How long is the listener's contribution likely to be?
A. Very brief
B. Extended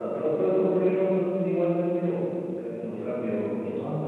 B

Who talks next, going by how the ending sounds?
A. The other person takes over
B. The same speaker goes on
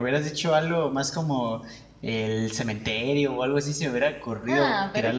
A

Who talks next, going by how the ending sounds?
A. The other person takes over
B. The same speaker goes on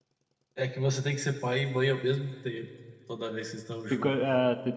A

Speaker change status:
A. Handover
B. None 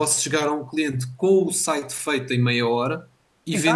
B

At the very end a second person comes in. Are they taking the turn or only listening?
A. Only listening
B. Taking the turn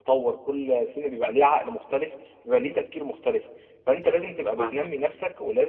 A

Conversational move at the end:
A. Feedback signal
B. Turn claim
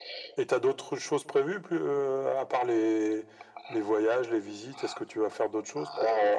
B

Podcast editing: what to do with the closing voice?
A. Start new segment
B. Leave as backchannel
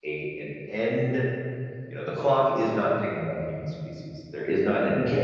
A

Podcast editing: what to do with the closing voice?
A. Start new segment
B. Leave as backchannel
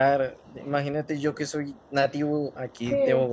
B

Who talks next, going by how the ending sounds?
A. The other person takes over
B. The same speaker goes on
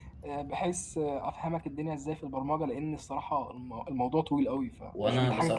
A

